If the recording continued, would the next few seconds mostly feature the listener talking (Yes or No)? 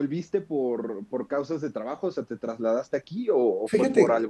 Yes